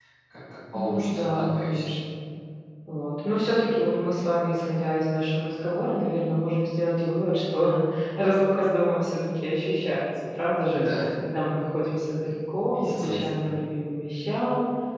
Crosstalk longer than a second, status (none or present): present